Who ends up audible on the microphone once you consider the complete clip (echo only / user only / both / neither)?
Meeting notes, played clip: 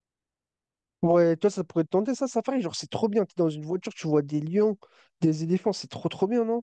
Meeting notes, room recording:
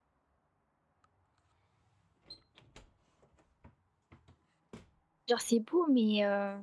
user only